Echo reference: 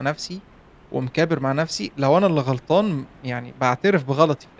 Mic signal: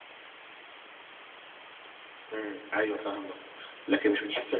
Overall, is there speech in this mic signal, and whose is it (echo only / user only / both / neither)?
user only